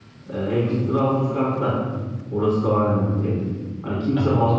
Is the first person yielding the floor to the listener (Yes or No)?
No